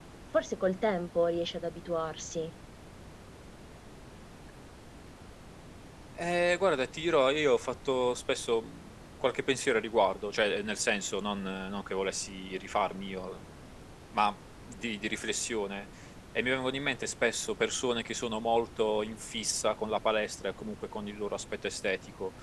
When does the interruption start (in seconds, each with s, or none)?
none